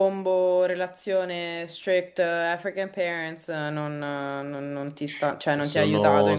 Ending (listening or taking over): taking over